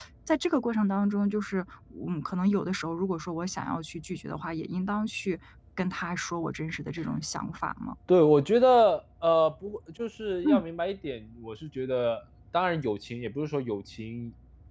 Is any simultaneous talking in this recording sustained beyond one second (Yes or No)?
No